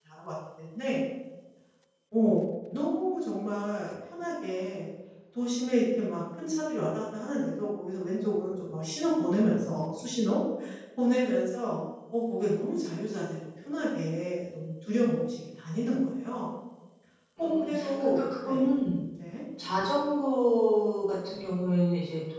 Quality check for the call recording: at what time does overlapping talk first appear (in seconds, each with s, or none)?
17.4 s